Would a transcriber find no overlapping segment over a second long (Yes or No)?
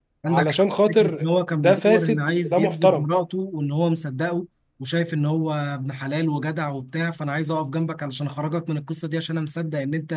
No